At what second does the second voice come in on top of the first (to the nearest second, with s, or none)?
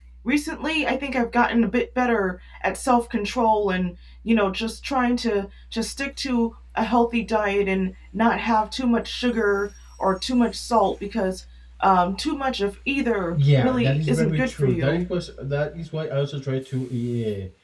13 s